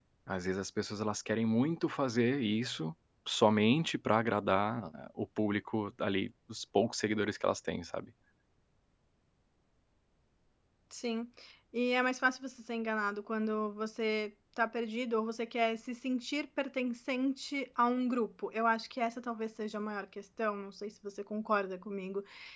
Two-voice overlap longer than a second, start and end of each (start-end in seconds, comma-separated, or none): none